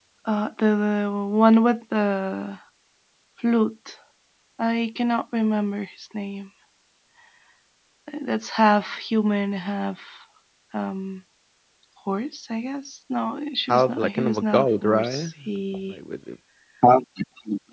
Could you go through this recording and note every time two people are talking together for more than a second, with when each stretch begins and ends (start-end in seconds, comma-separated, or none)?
13.7-15.3